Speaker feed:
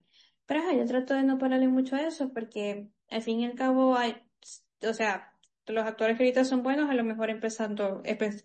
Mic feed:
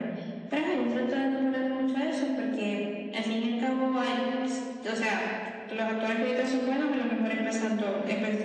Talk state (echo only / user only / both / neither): echo only